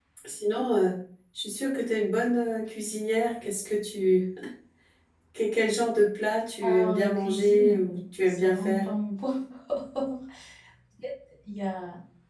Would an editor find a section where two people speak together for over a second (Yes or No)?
Yes